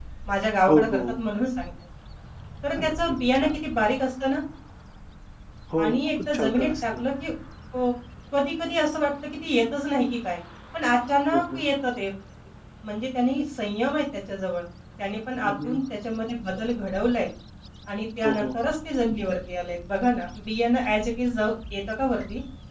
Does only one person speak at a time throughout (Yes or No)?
No